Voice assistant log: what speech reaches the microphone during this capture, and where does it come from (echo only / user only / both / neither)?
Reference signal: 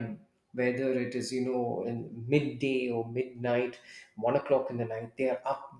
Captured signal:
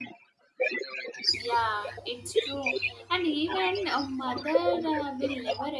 both